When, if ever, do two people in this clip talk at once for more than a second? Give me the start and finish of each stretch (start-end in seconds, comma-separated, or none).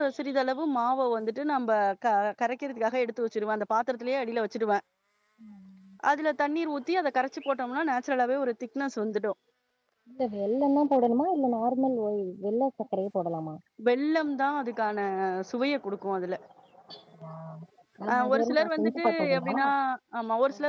18.3-19.5